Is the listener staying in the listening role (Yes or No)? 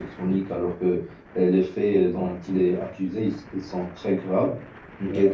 Yes